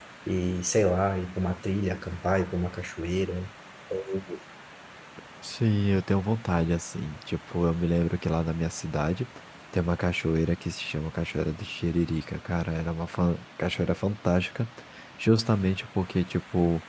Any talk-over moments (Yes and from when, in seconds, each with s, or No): No